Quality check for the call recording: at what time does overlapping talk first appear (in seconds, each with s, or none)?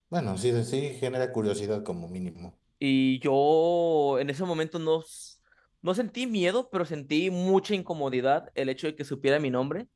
none